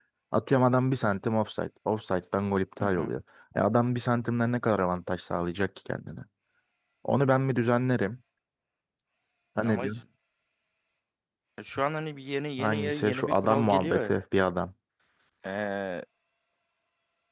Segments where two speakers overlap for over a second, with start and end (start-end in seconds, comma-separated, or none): 12.6-14.1